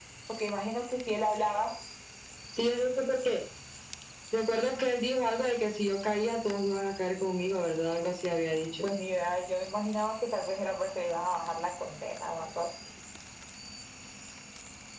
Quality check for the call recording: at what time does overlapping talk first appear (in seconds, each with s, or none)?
none